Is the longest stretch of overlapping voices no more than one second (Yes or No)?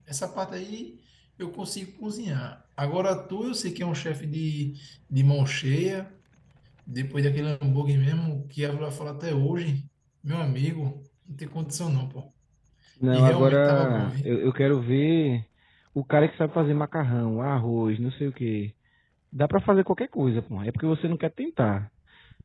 No